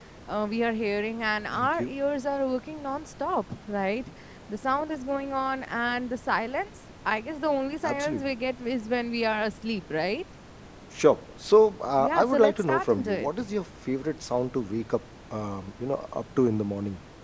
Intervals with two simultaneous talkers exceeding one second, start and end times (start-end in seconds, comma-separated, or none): 12.0-13.3